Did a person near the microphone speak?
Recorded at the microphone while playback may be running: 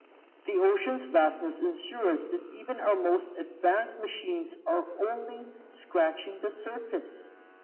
No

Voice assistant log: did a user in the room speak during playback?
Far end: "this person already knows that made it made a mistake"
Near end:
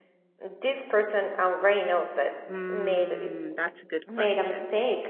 Yes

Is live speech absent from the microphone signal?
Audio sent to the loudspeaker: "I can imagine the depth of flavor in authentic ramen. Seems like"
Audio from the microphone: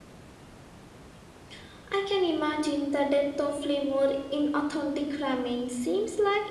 Yes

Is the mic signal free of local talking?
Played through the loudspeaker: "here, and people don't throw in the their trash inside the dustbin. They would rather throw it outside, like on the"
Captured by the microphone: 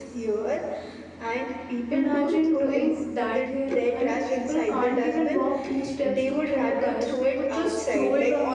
No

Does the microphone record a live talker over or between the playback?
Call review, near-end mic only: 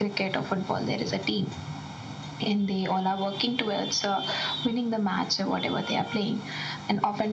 No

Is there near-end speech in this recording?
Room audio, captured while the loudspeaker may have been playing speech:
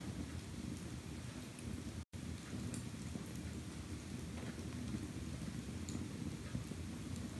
No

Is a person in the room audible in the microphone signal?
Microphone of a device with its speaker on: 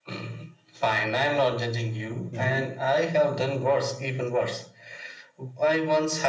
Yes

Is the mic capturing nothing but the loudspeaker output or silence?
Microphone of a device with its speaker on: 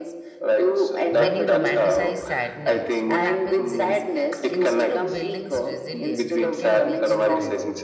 No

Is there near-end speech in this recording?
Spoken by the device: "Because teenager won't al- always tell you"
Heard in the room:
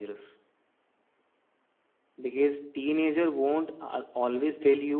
No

